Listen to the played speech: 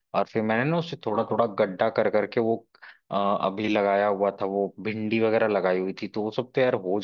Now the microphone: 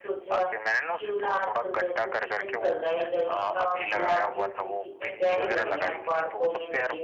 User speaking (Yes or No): Yes